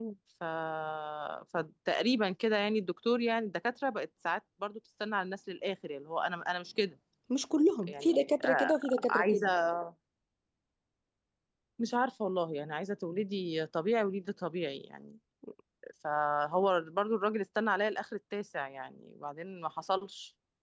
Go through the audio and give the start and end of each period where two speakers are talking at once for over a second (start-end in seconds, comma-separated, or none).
7.9-9.5